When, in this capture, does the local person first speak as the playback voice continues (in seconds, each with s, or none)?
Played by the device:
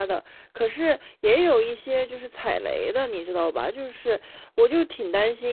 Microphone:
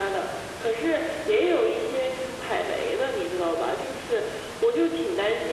none